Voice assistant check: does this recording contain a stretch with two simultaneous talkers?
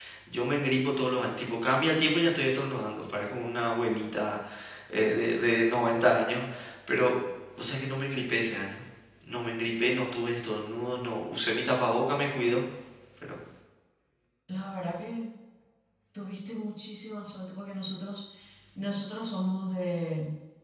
No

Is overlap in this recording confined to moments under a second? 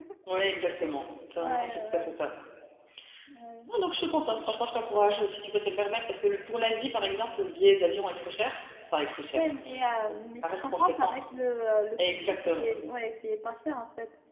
No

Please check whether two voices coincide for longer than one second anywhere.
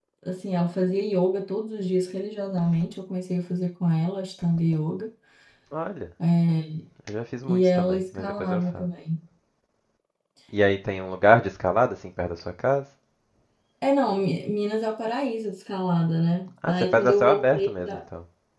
Yes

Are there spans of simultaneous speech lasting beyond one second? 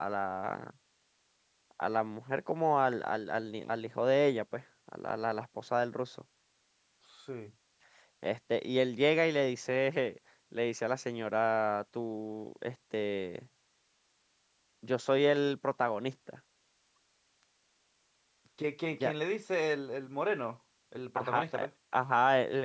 No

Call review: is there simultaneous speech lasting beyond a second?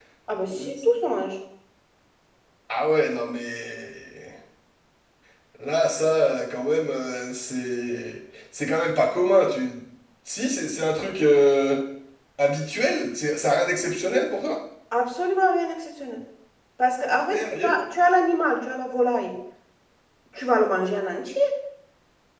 No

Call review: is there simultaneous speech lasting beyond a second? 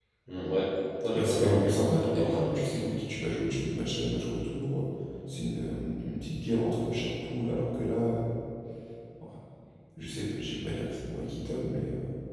Yes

